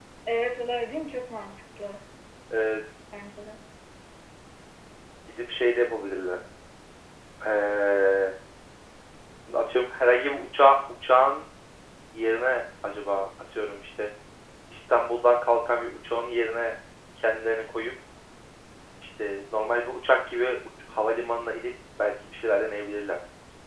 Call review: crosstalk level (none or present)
none